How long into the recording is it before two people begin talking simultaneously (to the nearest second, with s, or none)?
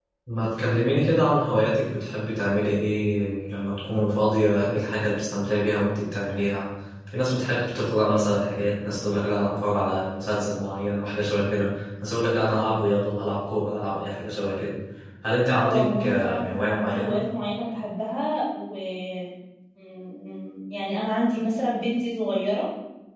16 s